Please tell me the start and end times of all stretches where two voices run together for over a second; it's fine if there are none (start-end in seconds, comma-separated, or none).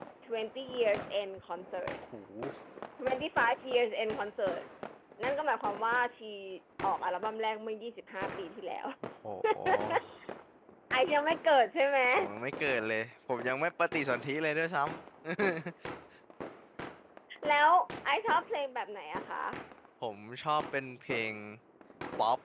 none